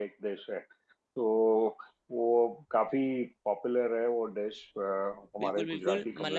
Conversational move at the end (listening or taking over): taking over